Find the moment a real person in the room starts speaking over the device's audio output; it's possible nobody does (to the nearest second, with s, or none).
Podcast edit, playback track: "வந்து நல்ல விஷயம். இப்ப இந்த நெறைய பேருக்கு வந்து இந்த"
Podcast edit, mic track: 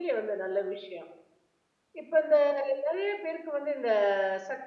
none